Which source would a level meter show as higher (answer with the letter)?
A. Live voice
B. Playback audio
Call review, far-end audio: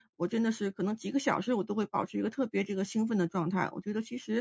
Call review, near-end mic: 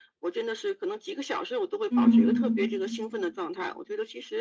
A